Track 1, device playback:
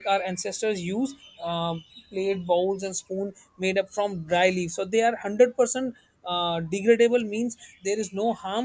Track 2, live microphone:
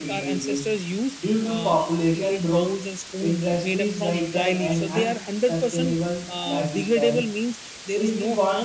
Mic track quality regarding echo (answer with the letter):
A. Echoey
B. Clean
A